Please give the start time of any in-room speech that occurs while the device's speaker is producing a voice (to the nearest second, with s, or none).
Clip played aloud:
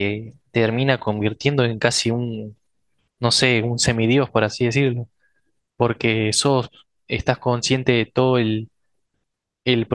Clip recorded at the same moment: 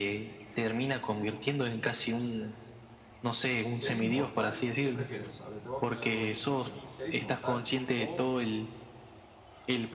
4 s